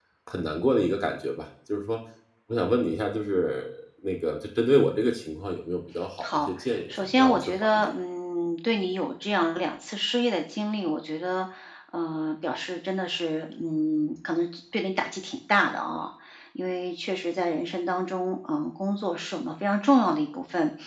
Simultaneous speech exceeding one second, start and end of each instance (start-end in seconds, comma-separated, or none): 6.2-7.9